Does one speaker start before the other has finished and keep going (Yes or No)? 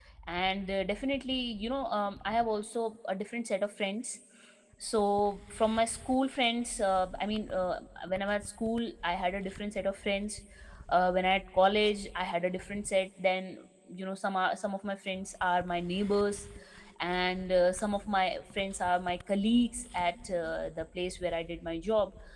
No